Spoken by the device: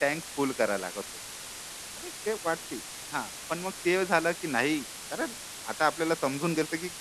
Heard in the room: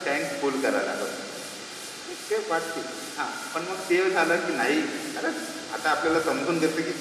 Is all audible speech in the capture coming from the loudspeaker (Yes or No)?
Yes